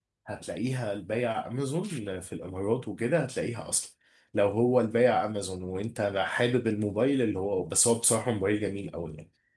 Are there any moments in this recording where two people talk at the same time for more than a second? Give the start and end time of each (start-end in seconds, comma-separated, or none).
none